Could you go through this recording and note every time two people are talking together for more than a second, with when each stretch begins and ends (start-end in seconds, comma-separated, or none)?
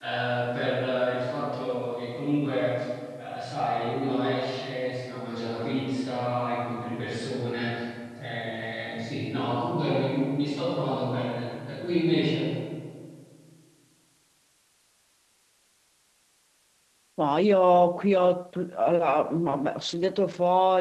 none